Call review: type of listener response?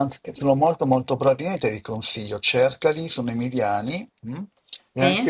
listening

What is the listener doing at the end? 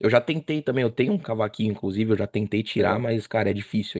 listening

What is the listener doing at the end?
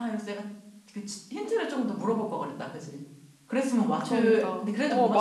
taking over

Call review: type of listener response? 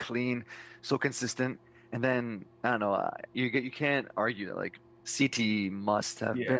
taking over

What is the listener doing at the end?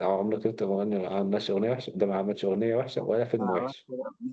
taking over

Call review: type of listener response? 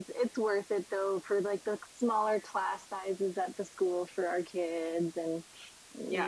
taking over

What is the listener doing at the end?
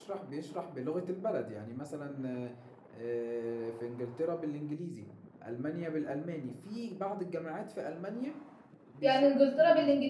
taking over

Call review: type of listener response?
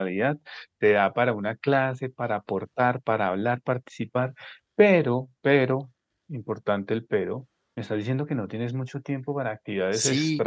taking over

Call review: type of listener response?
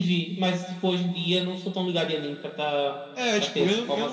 taking over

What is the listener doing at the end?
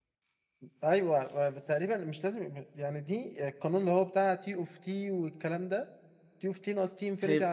listening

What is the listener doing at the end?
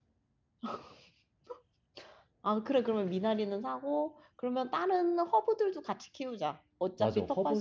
taking over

